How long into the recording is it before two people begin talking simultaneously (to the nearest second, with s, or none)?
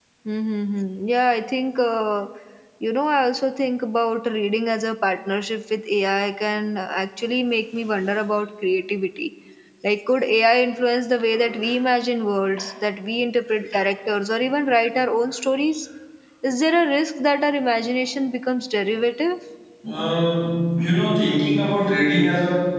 none